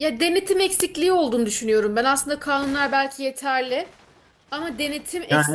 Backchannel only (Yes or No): Yes